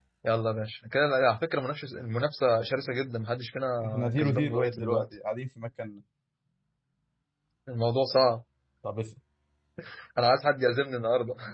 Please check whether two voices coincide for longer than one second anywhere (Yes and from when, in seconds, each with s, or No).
Yes, from 3.8 s